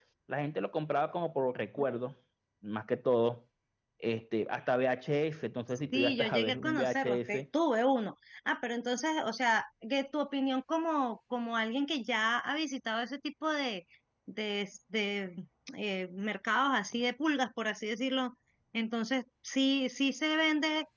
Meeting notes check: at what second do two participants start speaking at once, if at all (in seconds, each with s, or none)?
5.9 s